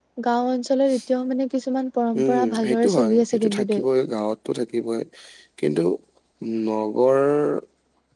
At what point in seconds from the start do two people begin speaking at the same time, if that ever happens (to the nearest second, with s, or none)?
2 s